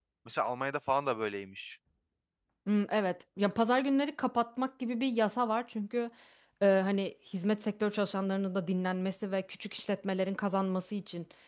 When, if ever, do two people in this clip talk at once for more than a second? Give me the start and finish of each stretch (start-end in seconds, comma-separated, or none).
none